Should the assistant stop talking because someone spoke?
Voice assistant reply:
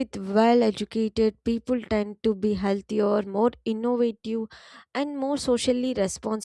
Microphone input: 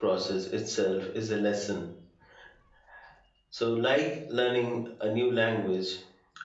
Yes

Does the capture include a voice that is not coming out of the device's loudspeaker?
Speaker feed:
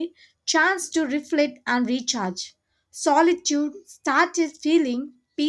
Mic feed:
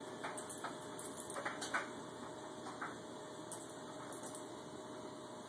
No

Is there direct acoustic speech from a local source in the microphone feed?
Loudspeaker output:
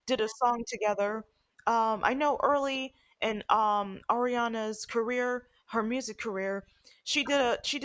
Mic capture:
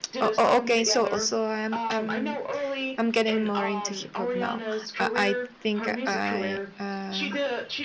Yes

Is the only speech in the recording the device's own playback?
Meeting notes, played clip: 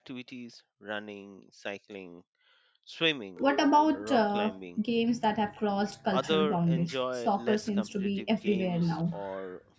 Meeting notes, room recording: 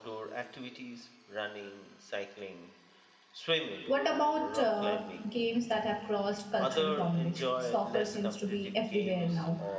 Yes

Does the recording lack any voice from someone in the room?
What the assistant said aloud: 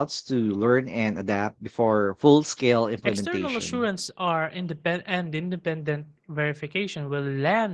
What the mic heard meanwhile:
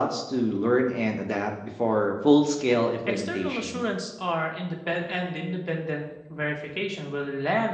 Yes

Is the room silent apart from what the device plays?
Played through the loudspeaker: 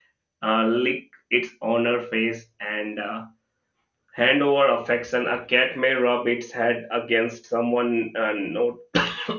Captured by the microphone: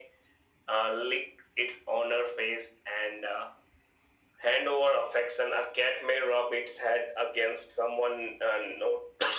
Yes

